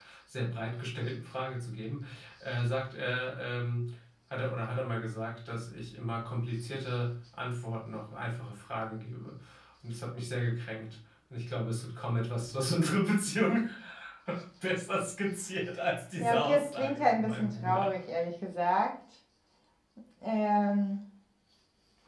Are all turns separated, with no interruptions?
No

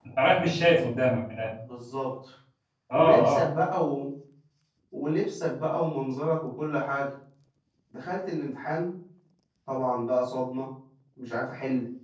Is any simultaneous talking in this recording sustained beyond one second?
No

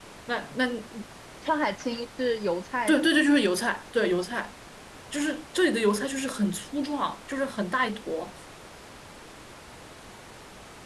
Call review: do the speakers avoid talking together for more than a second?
Yes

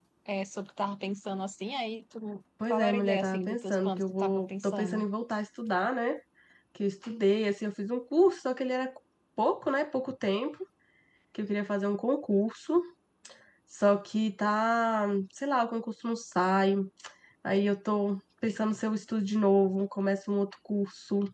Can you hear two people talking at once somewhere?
Yes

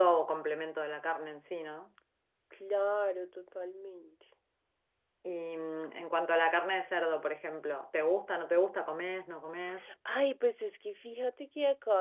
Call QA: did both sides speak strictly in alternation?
Yes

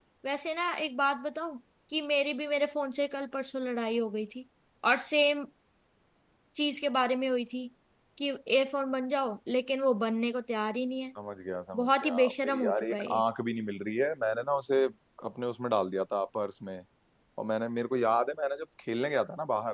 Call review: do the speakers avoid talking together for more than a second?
No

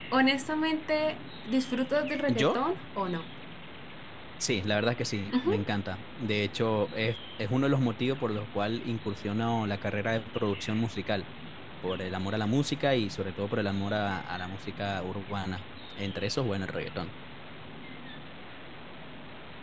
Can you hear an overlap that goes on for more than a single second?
No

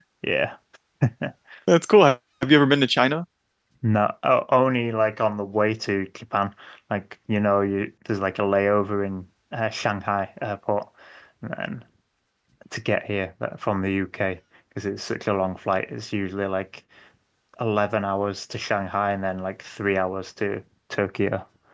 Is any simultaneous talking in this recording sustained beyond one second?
No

